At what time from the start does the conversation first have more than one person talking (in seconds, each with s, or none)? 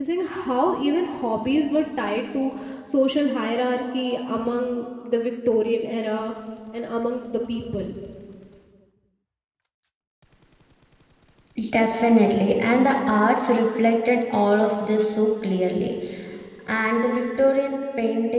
none